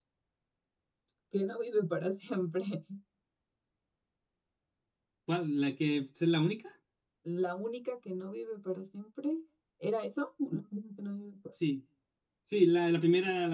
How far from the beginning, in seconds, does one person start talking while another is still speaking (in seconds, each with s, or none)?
none